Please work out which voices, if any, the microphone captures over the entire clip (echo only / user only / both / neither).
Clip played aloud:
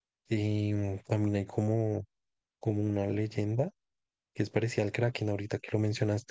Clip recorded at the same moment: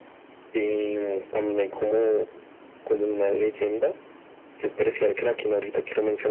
echo only